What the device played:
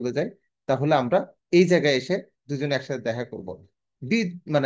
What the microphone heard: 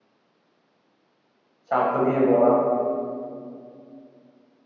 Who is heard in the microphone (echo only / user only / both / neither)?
user only